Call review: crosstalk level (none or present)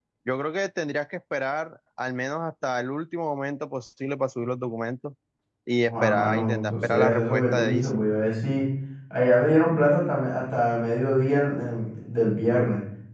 present